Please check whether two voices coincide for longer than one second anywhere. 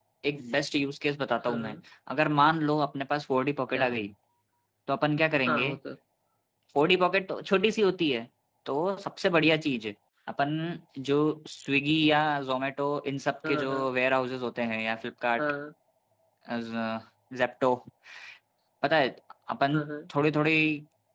No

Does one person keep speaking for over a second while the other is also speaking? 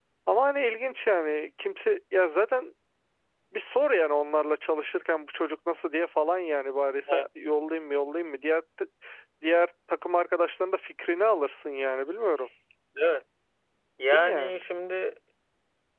No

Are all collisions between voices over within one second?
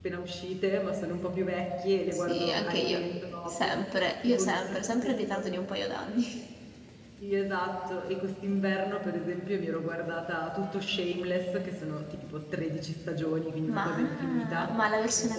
No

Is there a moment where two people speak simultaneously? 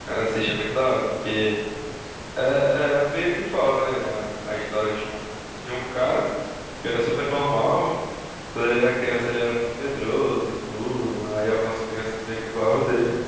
No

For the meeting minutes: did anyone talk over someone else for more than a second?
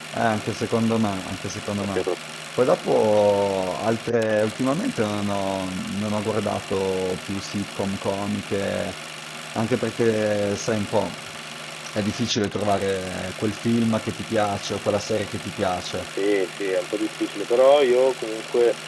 No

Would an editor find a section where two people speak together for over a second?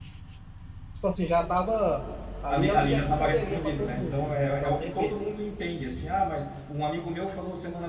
Yes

